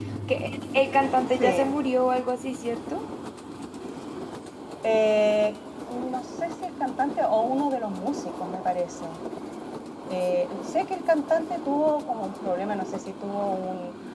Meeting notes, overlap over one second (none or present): none